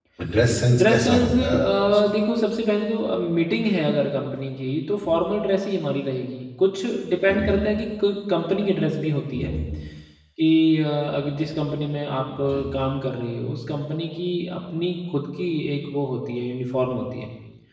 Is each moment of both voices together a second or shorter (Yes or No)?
No